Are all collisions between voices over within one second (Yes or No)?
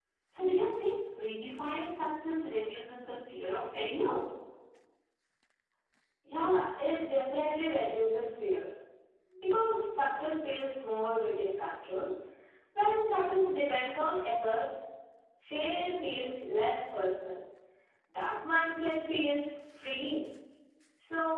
Yes